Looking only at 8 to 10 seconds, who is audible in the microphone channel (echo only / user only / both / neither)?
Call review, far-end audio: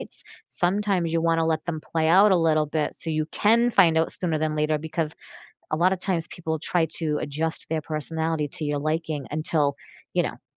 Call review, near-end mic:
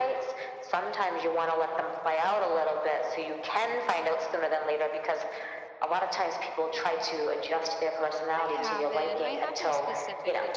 both